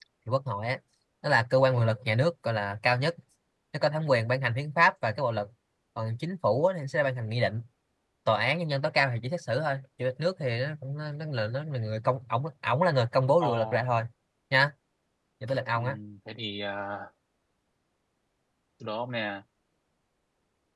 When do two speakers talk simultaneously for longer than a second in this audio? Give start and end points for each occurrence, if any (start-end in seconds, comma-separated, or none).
none